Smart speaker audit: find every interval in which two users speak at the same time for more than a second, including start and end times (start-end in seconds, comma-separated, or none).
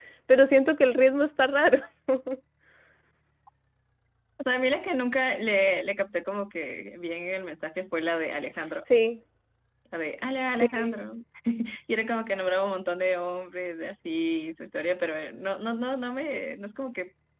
none